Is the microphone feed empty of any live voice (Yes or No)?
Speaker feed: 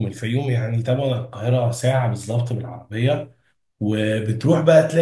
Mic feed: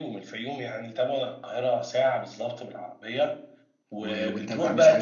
No